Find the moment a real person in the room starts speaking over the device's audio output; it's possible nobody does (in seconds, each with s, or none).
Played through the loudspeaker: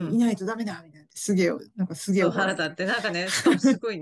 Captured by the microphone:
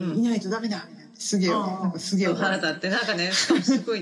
1.5 s